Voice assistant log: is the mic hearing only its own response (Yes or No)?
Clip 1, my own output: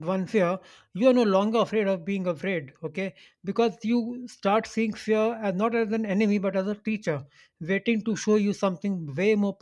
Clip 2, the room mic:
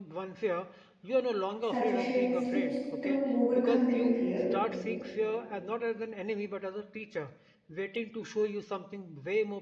No